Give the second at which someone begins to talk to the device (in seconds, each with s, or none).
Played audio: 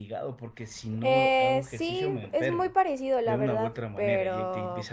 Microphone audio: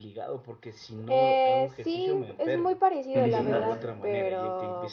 3.1 s